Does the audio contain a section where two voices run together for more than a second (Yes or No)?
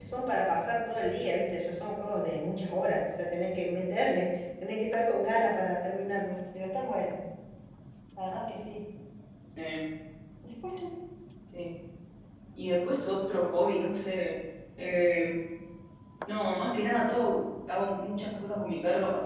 No